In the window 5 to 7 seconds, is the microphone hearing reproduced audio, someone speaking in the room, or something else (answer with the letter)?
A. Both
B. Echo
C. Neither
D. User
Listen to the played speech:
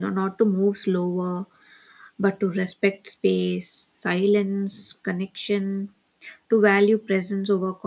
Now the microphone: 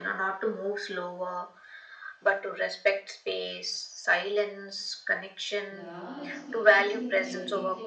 A